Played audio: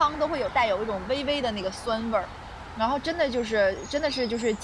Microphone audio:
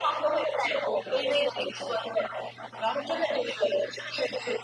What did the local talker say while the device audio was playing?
none

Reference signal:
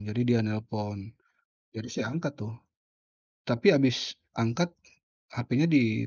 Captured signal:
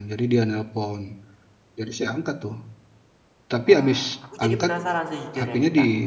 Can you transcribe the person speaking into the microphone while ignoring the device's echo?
Wah, aku jadi penasaran sejujurnya nih, Kak.

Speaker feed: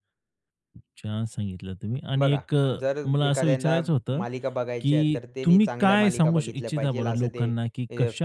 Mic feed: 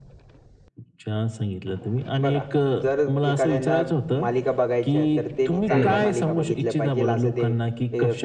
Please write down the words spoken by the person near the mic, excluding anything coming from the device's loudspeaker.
हं.

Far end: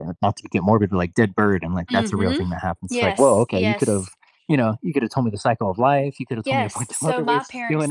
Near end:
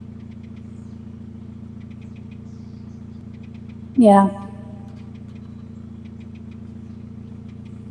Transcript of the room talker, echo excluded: yeah.

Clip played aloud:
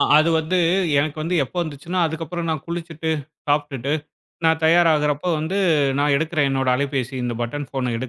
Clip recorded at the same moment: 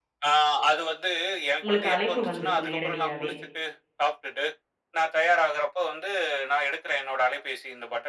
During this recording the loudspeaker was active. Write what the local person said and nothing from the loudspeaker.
உங்களுக்கு அழைப்பு வந்திருக்கும் நேரடியாவே.

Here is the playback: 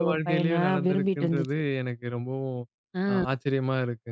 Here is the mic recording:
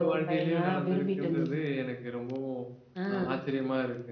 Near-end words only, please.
none

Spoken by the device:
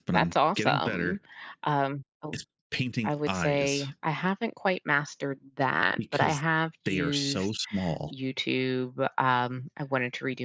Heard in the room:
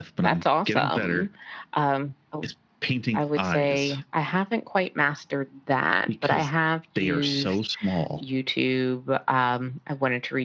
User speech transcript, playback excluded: none

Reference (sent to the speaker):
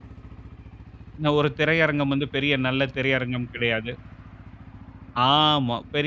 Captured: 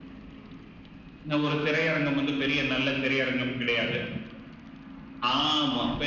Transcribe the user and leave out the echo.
none

